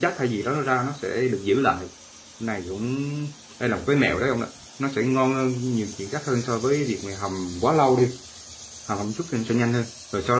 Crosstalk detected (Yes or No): No